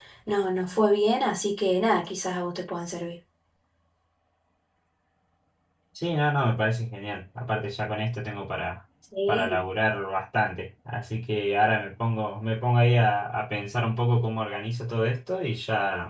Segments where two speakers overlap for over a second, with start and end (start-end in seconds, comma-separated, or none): none